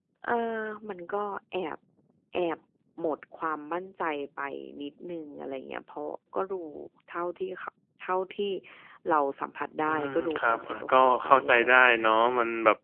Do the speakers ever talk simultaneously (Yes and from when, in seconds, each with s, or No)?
Yes, from 9.9 s